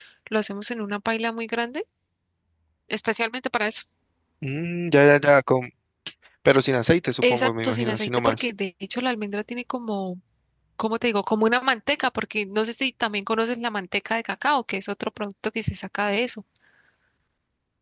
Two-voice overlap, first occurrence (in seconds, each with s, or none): 7.2 s